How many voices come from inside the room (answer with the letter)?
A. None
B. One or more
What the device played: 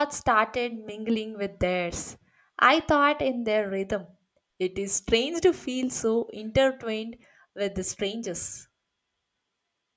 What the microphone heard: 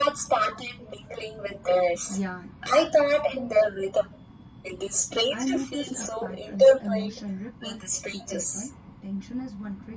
B